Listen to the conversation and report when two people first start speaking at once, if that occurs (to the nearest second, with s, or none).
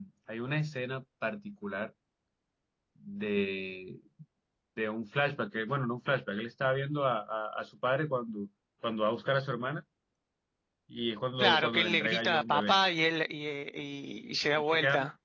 11 s